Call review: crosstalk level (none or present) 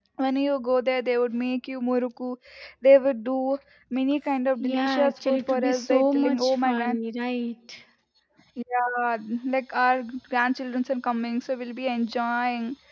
present